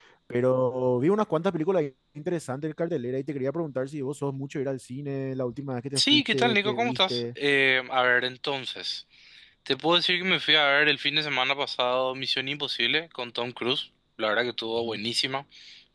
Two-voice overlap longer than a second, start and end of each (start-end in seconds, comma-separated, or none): 6.0-7.3